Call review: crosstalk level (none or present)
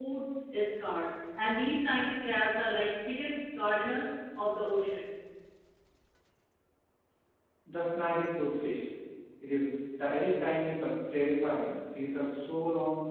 none